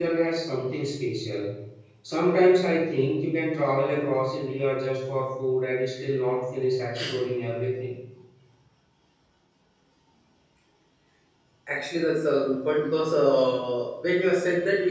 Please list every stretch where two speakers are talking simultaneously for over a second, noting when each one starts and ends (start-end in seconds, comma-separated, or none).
none